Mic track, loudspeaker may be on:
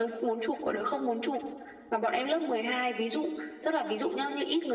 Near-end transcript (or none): none